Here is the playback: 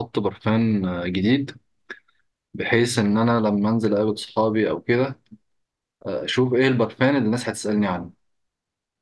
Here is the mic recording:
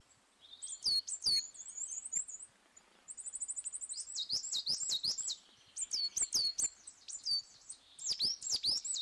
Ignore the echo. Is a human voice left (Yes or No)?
No